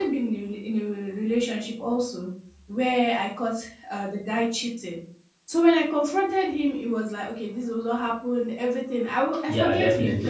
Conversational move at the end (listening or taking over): listening